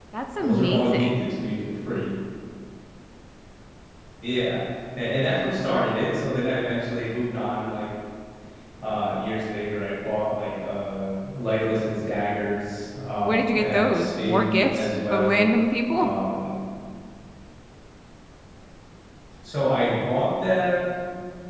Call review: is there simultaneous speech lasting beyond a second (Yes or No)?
Yes